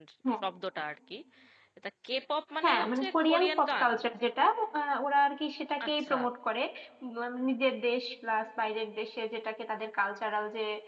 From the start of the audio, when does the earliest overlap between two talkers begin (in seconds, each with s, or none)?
2.6 s